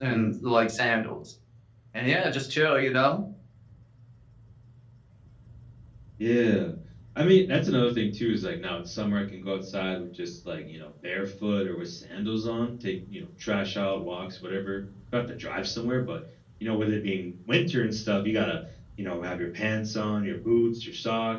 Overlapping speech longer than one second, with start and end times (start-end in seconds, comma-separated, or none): none